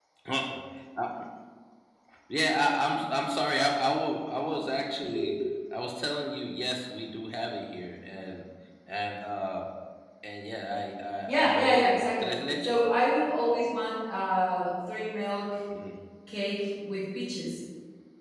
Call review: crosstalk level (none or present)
present